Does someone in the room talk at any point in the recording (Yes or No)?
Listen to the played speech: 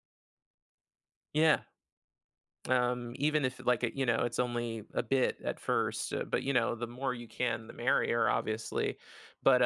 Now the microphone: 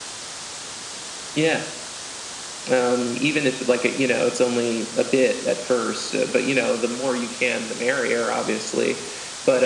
No